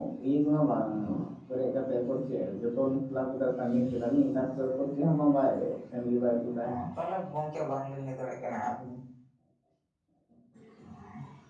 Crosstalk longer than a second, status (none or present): none